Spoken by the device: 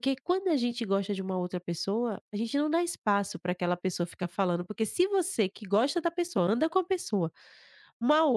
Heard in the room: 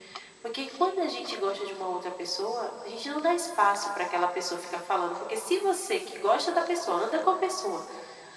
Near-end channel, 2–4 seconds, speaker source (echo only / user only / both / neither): echo only